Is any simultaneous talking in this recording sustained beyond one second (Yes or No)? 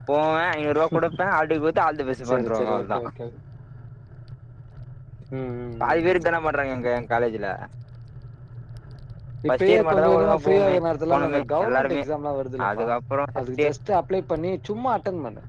Yes